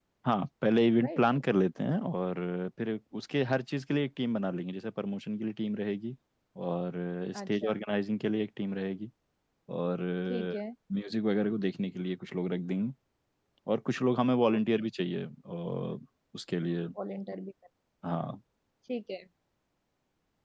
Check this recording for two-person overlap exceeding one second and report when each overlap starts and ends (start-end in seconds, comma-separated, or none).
none